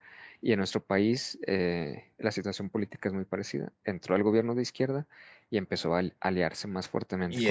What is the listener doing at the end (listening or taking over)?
taking over